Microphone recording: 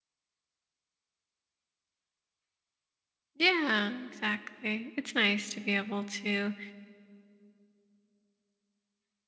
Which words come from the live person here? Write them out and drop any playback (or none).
Yeah, exactly. It's nice to be able to